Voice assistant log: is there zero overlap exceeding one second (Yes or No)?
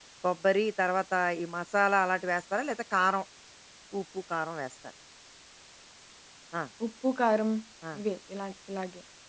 Yes